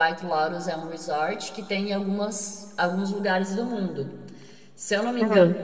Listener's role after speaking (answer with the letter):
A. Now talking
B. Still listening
B